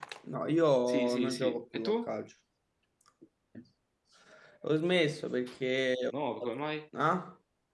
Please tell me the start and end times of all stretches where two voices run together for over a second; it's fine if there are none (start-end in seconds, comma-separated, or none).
0.9-2.1